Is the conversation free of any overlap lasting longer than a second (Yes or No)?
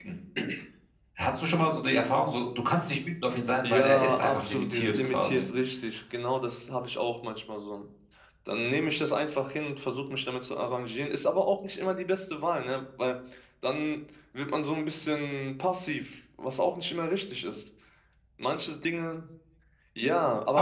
No